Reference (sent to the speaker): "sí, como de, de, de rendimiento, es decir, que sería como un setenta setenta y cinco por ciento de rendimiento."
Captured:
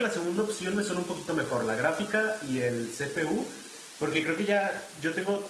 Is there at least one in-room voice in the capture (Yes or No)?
Yes